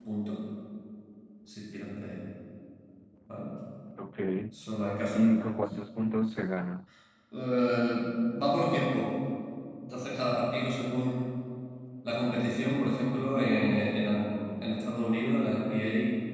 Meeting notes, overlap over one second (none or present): none